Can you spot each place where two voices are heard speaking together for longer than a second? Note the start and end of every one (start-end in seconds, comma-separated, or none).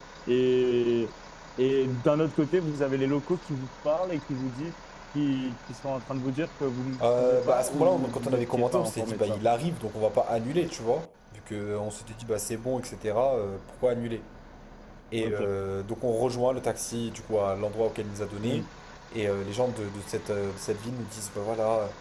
7.2-9.4